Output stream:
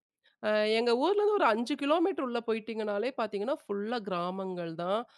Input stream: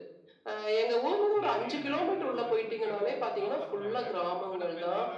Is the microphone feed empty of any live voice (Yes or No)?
No